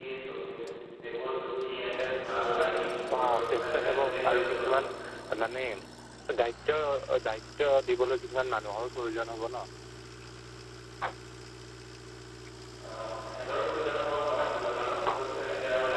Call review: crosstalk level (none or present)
present